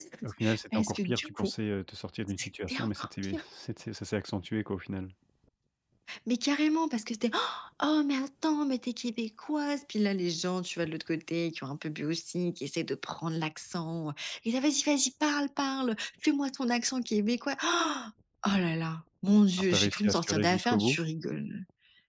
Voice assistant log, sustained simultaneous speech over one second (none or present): present